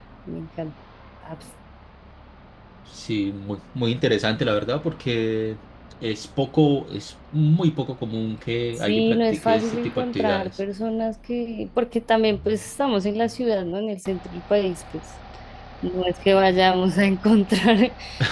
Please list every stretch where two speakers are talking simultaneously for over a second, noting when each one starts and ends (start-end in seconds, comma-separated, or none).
8.8-10.6